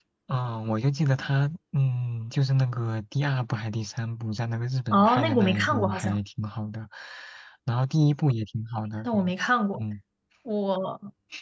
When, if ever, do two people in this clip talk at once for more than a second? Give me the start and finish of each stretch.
4.9-6.2

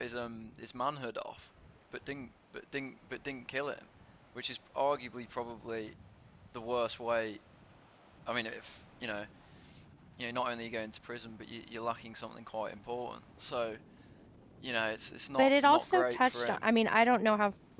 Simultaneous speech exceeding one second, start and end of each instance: 15.4-16.6

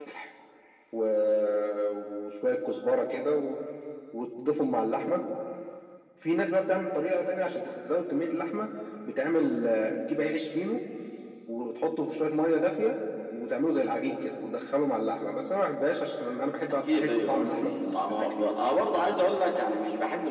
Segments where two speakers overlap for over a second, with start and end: 16.7-18.5

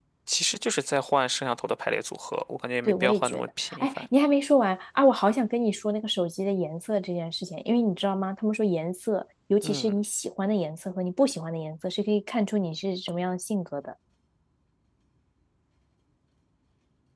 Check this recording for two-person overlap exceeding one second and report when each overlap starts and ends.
2.8-4.1

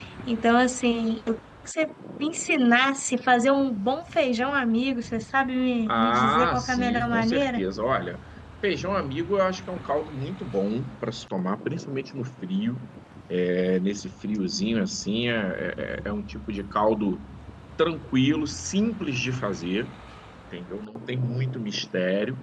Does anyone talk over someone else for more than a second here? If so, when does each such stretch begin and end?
5.9-7.6

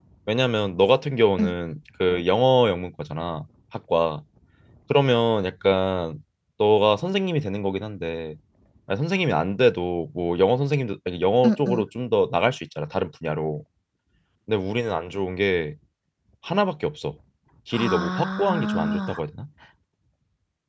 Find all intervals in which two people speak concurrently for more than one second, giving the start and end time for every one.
17.7-19.2

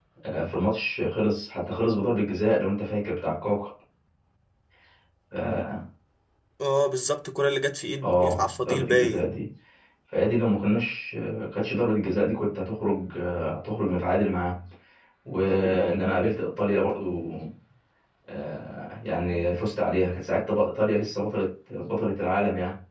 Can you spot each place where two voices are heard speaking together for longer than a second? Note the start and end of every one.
8.0-9.3

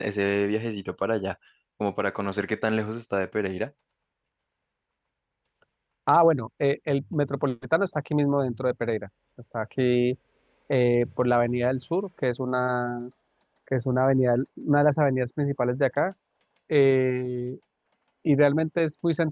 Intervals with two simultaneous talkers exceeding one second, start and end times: none

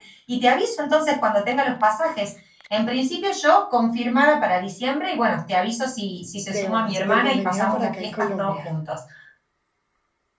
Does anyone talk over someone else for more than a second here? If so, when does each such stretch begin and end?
6.5-8.8

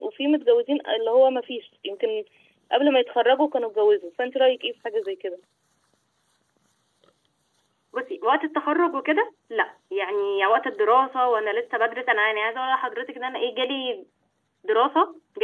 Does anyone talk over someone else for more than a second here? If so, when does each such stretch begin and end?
none

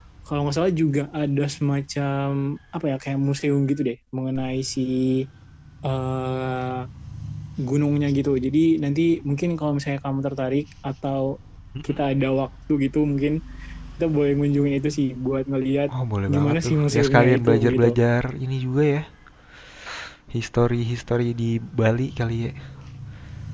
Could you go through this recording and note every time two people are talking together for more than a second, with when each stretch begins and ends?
16.3-17.9

